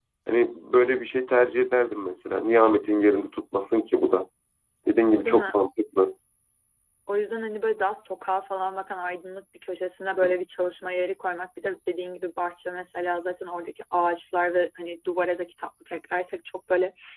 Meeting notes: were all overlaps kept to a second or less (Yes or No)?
Yes